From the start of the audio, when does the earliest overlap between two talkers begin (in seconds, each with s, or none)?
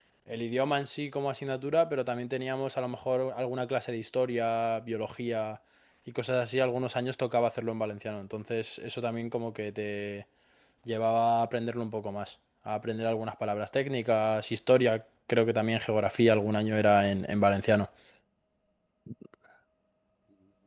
none